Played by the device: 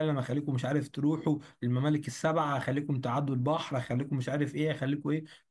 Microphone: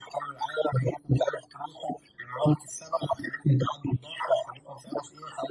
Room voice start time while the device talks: none

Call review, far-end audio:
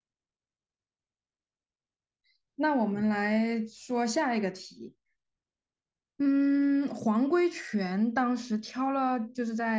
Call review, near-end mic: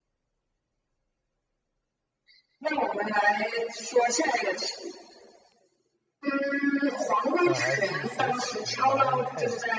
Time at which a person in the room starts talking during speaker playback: 7 s

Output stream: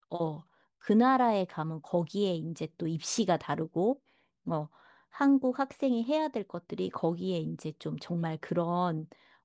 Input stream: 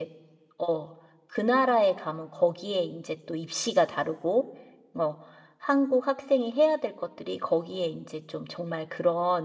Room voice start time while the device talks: none

